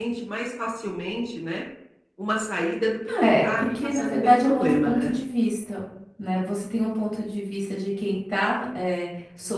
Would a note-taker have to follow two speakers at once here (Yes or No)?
Yes